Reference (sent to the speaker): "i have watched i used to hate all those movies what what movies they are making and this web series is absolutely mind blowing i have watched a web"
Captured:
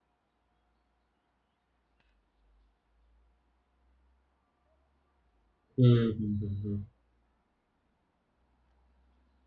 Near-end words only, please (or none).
Mm-hmm.